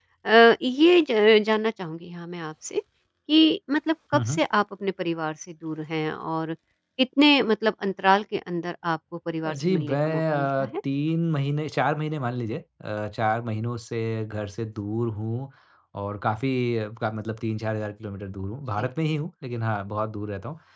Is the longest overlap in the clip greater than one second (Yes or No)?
Yes